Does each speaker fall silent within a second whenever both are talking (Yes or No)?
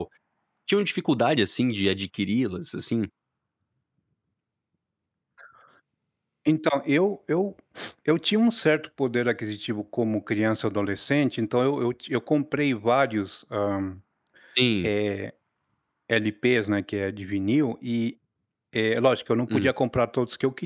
Yes